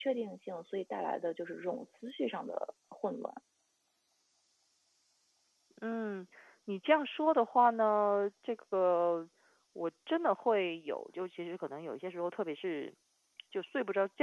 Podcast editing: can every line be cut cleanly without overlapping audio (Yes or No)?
Yes